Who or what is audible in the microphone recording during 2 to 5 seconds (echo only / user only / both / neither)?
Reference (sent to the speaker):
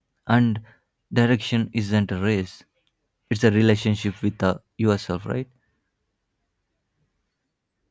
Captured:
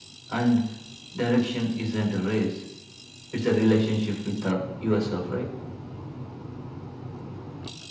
echo only